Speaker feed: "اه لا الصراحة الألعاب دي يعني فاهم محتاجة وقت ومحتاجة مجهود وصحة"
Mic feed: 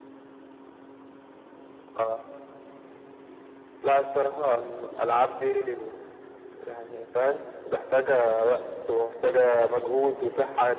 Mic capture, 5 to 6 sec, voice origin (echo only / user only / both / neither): echo only